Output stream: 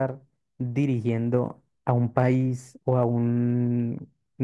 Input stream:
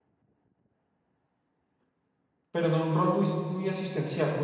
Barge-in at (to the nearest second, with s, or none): 3 s